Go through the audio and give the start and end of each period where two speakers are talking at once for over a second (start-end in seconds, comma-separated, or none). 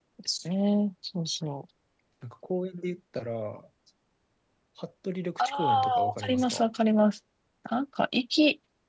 5.4-6.7